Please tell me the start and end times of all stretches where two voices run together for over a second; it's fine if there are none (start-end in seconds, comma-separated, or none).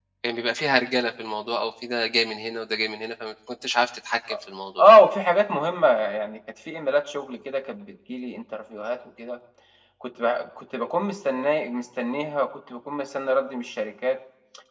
none